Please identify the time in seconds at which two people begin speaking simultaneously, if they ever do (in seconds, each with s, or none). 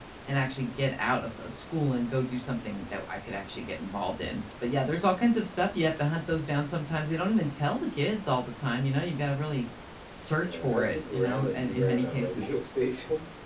10.4 s